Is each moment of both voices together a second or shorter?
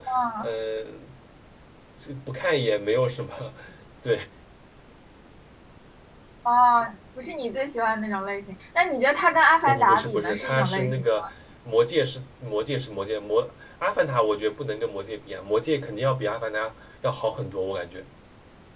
No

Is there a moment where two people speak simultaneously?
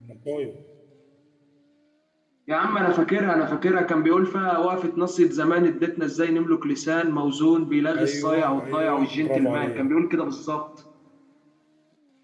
Yes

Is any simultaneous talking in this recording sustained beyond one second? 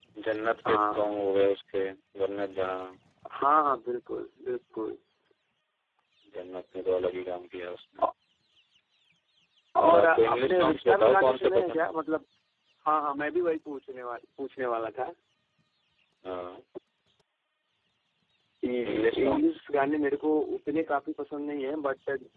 Yes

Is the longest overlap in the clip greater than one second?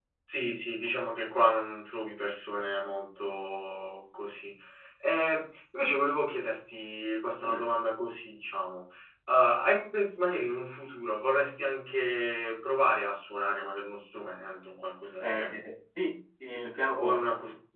No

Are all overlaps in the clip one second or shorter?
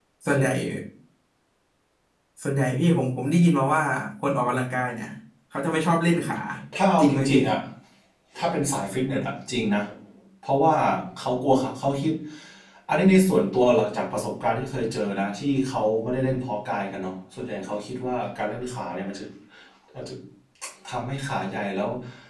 Yes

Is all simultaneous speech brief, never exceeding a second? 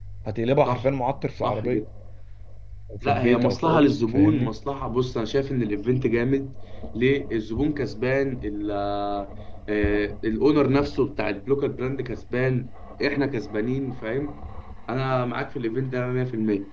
No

